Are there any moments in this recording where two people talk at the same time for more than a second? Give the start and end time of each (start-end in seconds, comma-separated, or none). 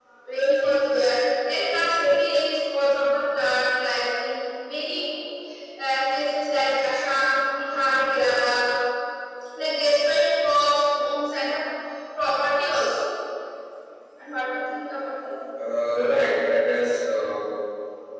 none